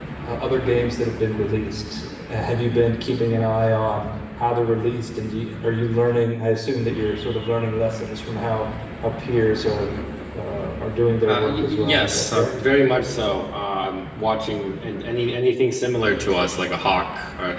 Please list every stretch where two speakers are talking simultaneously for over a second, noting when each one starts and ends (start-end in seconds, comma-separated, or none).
11.2-12.6